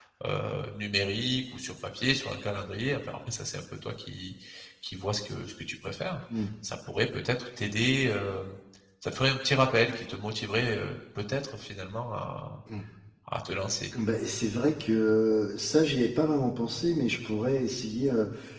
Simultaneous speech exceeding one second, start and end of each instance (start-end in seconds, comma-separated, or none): none